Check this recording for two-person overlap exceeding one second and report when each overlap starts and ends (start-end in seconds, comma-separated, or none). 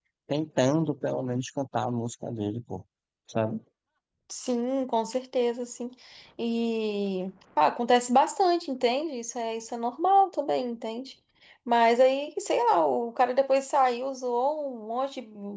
none